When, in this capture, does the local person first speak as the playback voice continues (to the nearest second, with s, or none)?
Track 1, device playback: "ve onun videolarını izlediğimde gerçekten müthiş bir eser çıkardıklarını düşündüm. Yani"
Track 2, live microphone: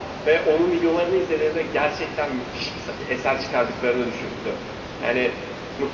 none